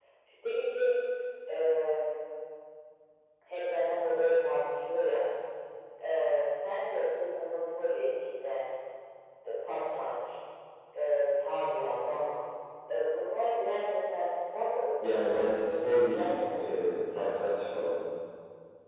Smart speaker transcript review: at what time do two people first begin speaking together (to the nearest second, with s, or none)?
15 s